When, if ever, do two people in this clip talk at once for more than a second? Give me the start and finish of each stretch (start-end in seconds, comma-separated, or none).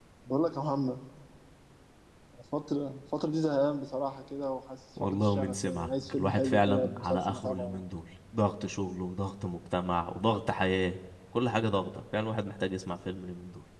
5.0-7.8